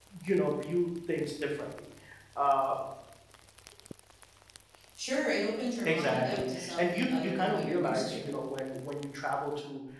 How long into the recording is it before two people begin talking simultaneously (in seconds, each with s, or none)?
5.8 s